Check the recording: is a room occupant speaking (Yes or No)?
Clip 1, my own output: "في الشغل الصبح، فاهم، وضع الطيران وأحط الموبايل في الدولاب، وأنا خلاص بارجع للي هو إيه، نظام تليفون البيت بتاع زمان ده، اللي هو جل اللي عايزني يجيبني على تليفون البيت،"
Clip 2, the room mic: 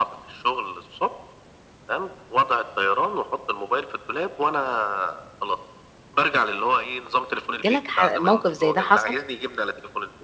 Yes